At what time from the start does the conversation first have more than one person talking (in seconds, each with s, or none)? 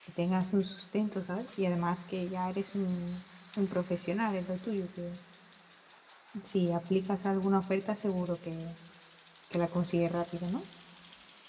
none